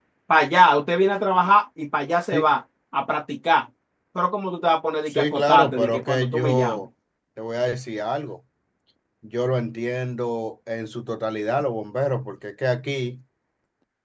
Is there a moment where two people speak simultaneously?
Yes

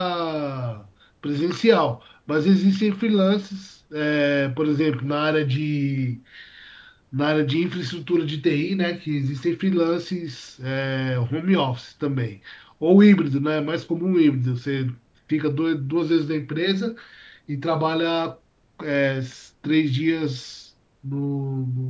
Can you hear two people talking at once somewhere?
No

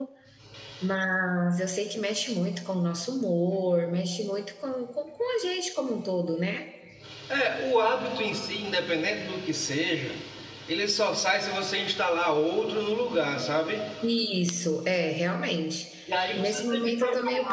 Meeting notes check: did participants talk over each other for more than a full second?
Yes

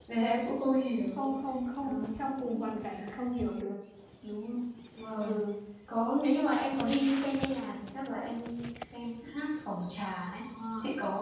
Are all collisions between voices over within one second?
Yes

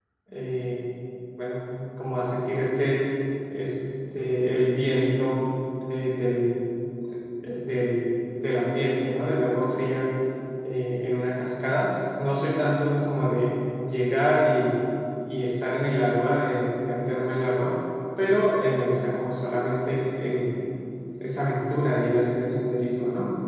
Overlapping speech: No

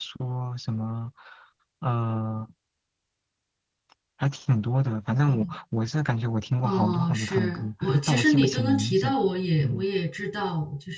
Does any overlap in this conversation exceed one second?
Yes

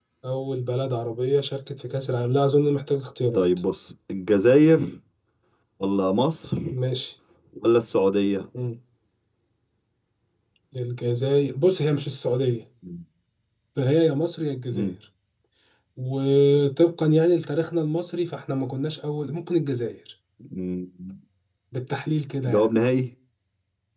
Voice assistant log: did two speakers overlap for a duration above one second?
No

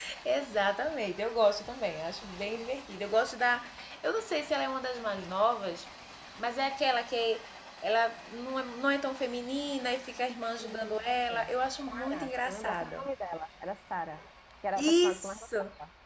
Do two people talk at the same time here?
Yes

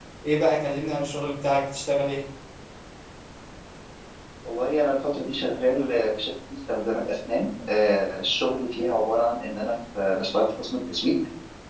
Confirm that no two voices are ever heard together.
Yes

